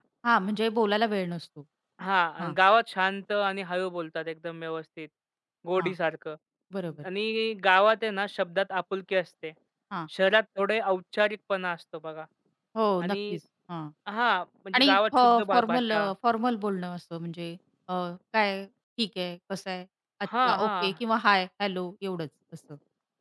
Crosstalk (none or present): present